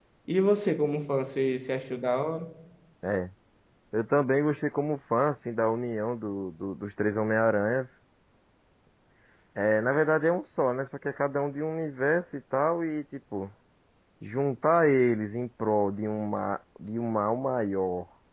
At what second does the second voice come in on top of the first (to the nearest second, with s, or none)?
none